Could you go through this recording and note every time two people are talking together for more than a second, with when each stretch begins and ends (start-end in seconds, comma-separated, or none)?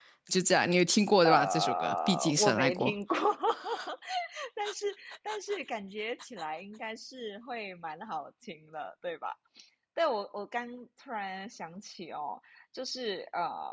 1.2-2.9